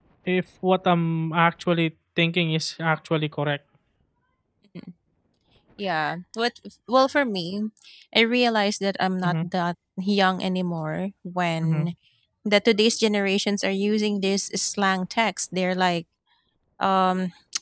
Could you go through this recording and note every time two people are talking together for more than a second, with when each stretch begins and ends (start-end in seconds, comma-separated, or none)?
none